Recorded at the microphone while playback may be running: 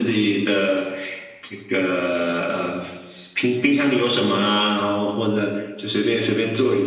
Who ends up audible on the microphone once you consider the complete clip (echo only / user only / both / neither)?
echo only